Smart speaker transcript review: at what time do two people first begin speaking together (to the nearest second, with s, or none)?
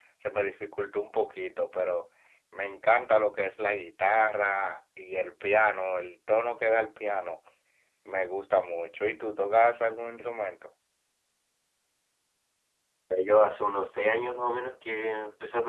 none